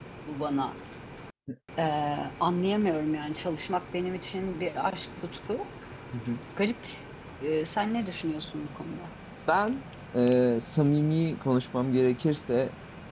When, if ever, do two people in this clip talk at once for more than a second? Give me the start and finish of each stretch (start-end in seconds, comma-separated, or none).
none